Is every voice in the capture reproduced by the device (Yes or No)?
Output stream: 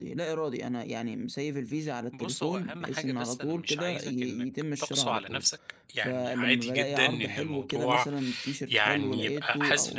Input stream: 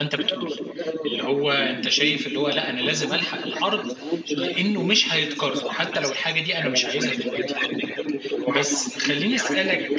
No